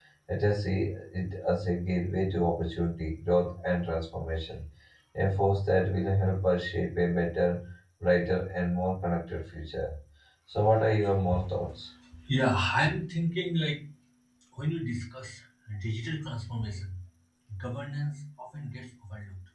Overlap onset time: none

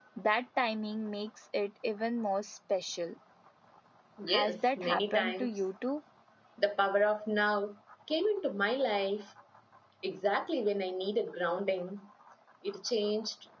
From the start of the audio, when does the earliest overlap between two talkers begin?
4 s

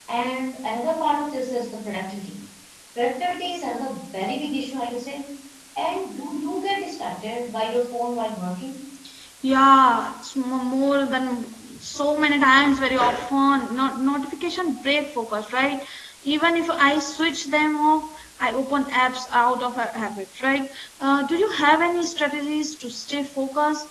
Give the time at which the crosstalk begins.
none

